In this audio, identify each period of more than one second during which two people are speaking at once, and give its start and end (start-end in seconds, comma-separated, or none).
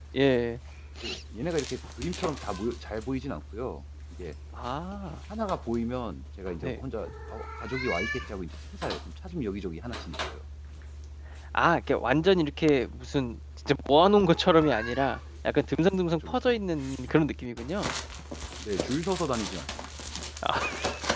none